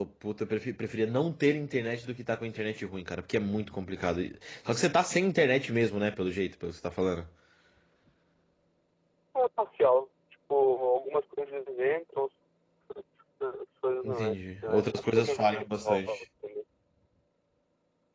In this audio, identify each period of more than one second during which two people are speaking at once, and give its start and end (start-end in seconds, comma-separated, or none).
14.8-16.2